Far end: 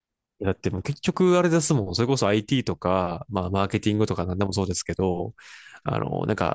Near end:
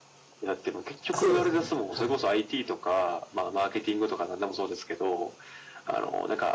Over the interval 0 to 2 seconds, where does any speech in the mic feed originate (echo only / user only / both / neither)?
both